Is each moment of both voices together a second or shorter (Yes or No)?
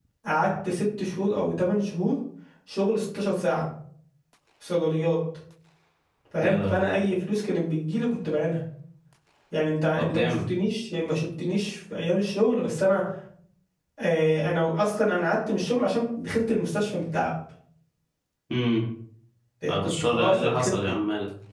No